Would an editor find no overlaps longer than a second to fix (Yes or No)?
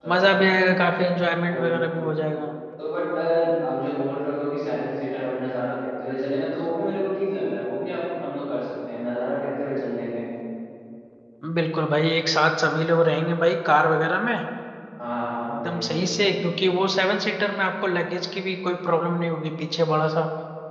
Yes